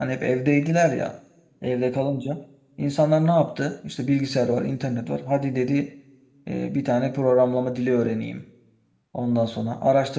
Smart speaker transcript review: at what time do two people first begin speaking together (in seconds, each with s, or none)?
none